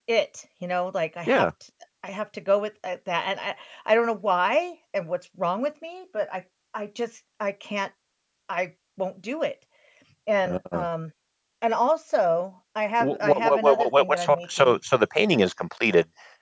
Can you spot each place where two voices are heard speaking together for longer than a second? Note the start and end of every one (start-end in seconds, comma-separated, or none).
13.0-14.8